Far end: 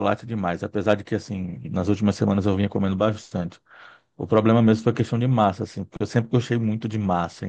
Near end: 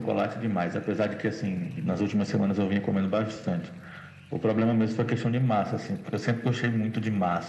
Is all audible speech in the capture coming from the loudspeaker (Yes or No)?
Yes